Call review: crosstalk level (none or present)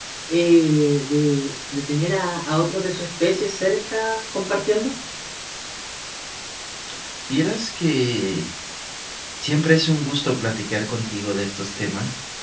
none